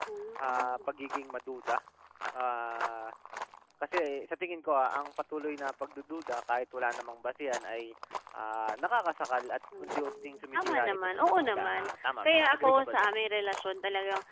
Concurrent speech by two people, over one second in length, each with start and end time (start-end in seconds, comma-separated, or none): 9.8-13.2